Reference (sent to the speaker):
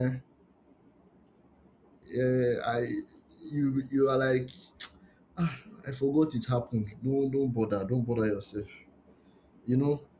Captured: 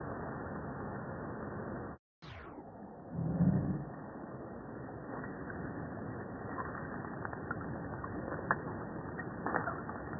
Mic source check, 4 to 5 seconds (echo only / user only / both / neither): neither